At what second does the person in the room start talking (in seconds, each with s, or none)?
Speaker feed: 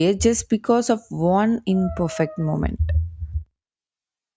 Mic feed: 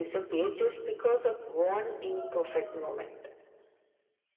none